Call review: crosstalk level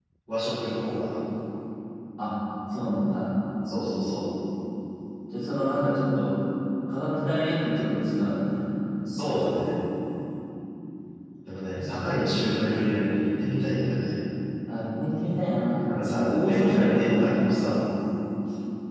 present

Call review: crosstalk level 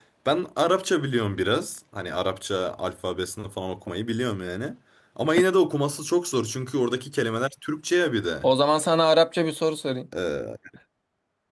none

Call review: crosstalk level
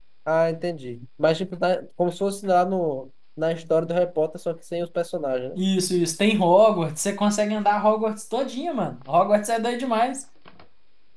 none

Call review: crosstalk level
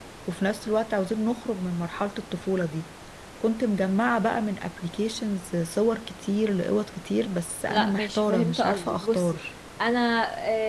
present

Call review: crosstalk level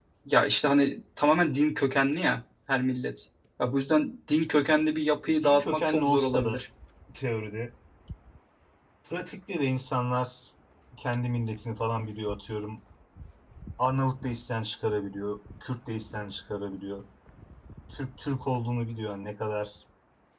present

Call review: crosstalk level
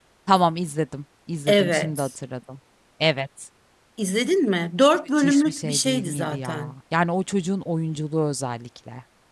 present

